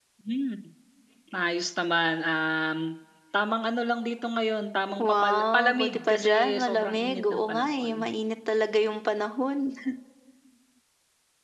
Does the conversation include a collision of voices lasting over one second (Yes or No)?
Yes